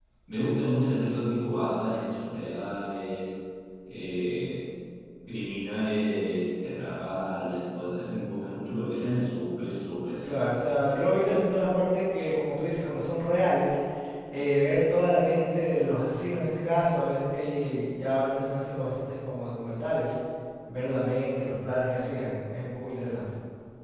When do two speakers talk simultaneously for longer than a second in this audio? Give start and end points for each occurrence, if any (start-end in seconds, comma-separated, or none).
none